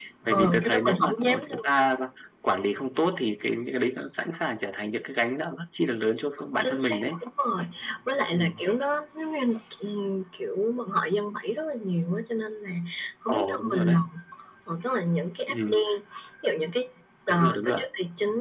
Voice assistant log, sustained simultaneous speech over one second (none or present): present